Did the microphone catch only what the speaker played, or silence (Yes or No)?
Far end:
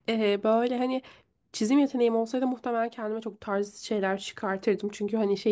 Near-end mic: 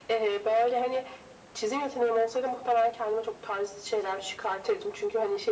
Yes